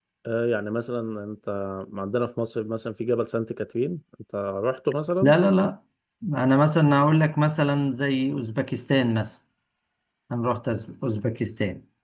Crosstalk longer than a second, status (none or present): none